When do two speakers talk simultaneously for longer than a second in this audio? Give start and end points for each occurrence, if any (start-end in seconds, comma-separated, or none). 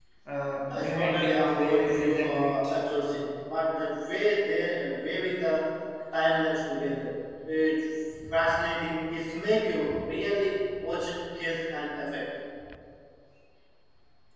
0.8-2.5